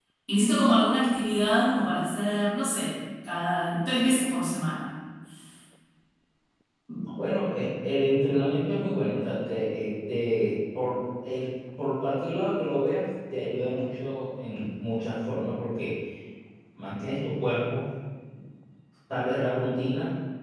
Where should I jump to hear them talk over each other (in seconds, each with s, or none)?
none